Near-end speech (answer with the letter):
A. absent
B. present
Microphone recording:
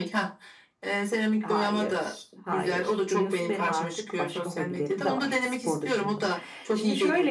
B